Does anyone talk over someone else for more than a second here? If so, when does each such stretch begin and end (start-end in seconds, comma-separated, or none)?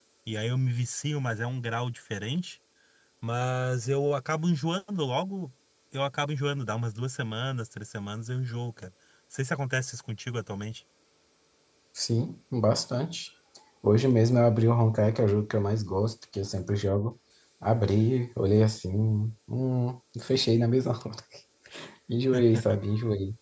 none